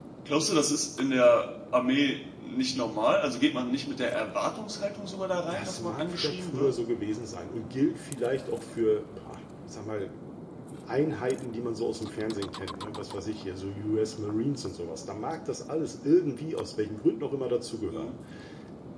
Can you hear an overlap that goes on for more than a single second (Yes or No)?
Yes